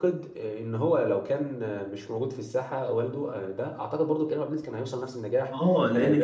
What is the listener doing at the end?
taking over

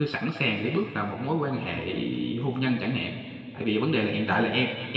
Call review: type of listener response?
listening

